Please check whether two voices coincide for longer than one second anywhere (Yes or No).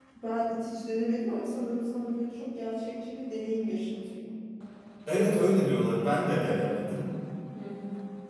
No